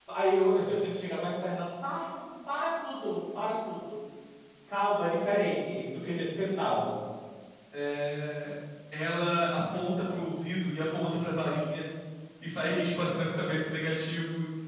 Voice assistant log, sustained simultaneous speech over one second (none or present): none